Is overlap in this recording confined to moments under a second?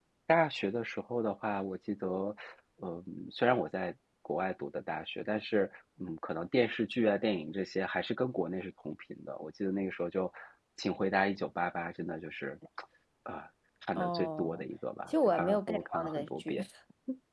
No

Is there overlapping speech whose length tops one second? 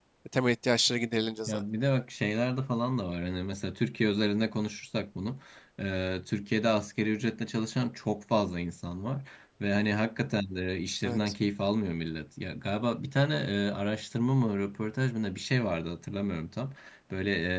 No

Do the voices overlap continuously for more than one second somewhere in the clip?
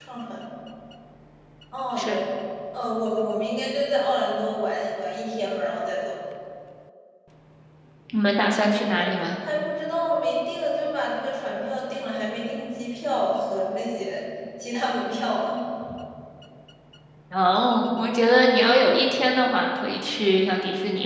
No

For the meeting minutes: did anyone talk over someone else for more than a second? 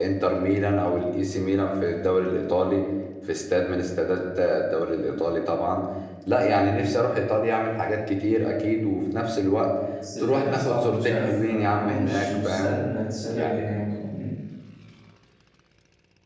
Yes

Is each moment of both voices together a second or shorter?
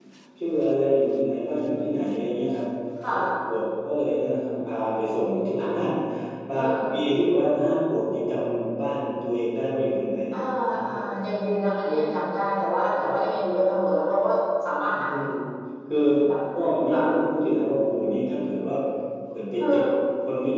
Yes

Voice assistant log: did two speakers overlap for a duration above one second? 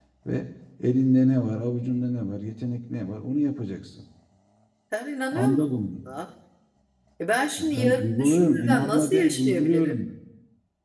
Yes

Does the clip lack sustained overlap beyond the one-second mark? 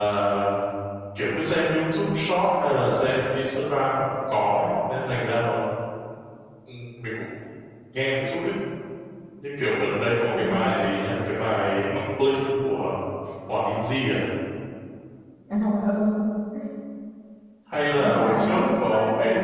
No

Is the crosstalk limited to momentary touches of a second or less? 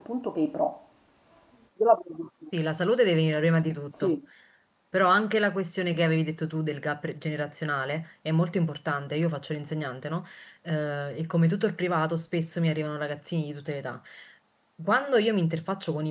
Yes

